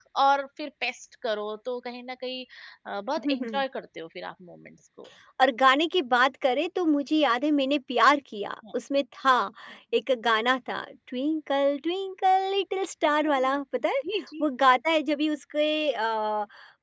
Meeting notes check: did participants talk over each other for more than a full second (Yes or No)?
No